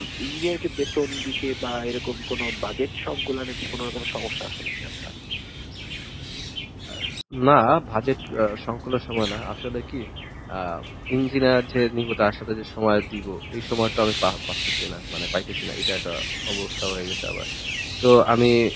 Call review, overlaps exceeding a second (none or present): none